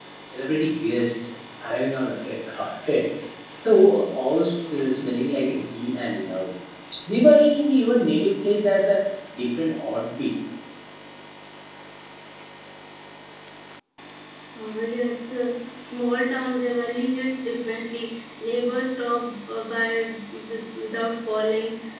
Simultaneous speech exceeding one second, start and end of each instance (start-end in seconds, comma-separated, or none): none